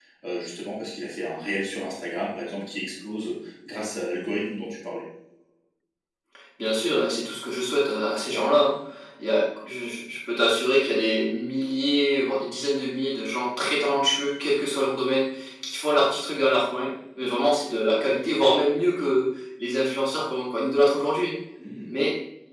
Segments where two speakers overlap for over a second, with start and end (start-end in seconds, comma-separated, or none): none